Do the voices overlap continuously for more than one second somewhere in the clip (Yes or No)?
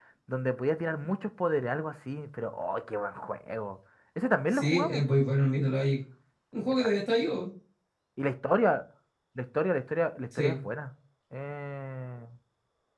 No